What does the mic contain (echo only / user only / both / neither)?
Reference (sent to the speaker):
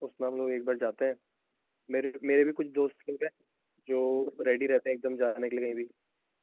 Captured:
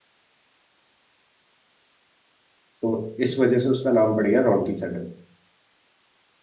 user only